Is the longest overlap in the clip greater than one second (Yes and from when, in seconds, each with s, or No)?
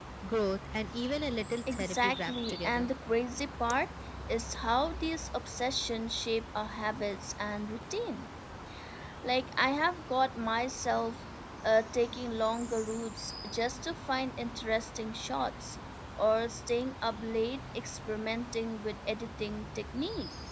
Yes, from 1.7 s